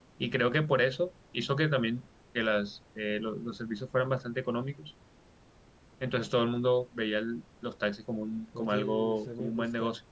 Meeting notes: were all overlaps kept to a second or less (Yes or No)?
No